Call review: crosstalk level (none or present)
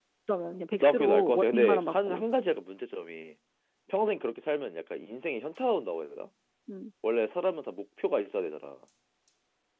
present